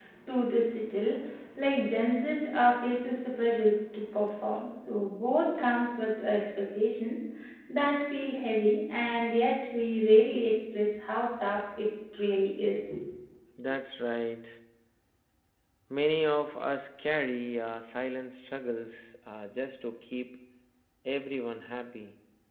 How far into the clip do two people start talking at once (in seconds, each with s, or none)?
none